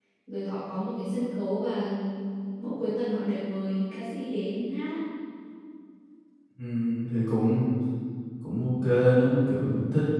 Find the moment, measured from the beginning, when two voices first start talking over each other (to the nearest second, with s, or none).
none